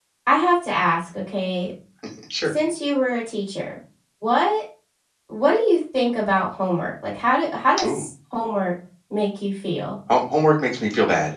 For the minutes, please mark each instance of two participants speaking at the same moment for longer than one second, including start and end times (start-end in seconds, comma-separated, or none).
none